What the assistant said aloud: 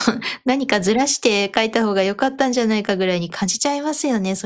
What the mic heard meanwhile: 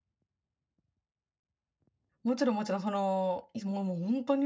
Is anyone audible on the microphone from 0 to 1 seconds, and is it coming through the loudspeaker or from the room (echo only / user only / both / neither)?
neither